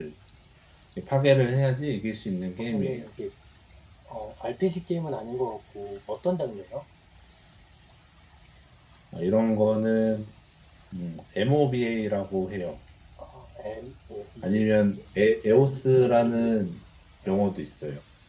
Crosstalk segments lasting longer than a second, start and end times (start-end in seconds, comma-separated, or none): none